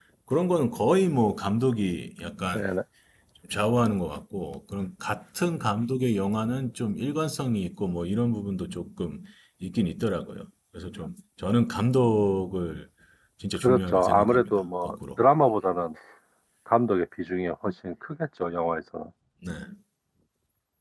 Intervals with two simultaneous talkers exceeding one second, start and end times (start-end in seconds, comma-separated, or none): 13.6-15.2